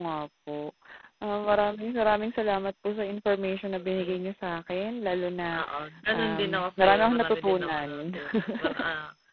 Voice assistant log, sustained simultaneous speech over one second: present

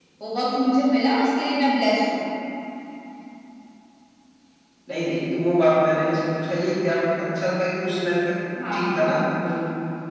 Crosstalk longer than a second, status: none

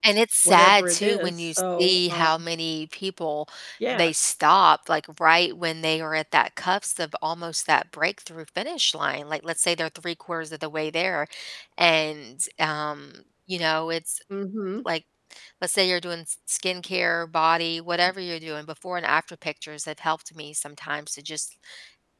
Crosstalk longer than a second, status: present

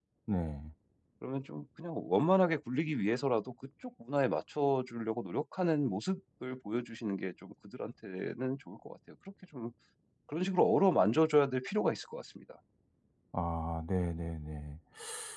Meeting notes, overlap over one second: none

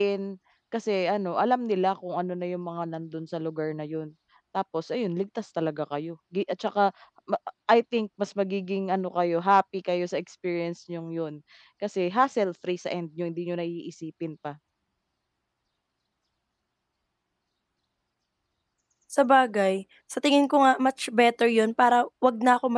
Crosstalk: none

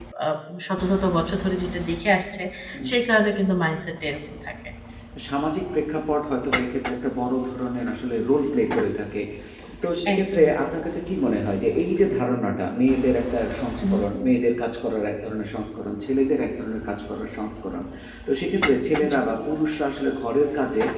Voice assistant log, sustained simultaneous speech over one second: none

